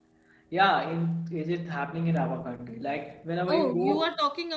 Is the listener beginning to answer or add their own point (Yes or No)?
Yes